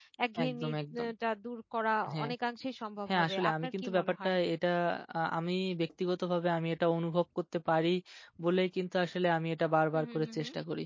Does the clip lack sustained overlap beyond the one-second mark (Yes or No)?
No